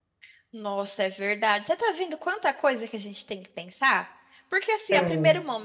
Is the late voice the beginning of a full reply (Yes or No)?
No